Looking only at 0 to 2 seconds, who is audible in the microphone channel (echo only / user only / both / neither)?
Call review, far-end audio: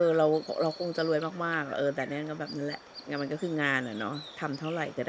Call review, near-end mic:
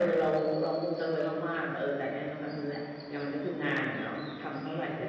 echo only